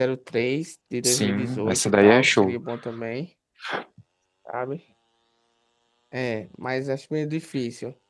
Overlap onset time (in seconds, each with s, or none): 1.0 s